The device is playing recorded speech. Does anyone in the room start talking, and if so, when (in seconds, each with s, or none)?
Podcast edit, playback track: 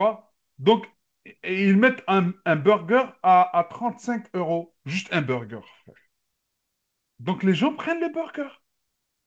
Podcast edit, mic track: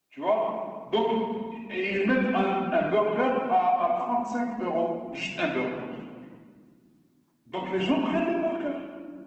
none